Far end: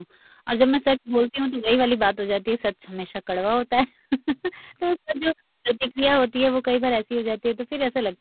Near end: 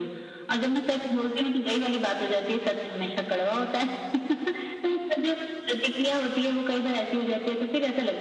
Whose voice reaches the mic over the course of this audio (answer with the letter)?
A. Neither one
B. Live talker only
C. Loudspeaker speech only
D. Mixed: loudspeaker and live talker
C